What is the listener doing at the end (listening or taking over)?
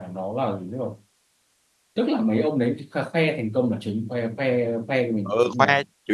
taking over